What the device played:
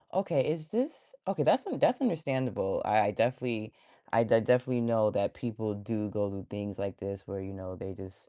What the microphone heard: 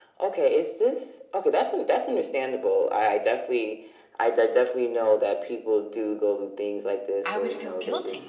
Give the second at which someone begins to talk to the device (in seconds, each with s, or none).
7.3 s